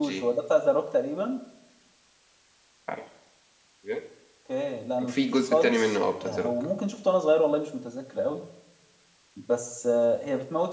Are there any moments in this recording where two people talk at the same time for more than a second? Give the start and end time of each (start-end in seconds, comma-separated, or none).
5.0-6.5